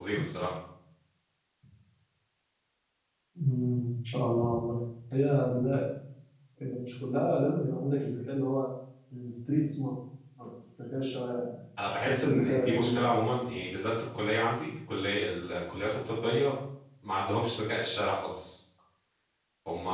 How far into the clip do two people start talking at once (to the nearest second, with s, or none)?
12 s